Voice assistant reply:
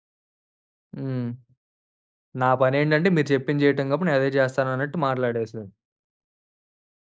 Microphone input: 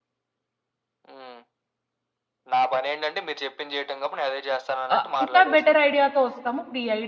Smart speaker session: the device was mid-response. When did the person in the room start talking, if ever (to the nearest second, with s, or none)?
5 s